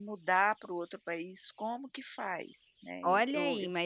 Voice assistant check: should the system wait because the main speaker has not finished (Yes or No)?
No